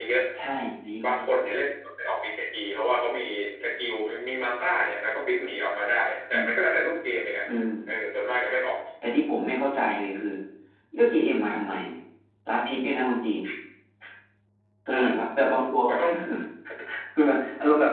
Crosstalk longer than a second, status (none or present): none